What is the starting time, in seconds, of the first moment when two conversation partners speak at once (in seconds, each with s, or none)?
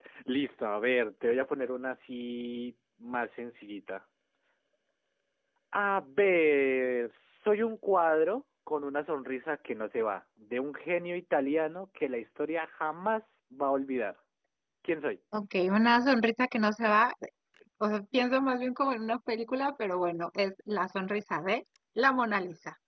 none